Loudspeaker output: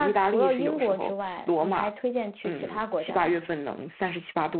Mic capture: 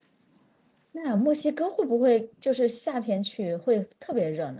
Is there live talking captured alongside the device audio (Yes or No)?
Yes